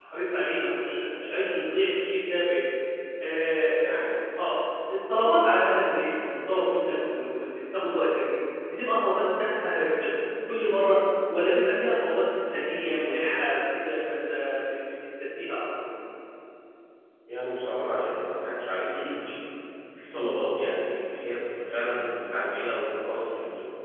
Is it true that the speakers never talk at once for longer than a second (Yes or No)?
Yes